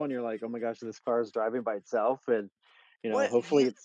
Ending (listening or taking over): taking over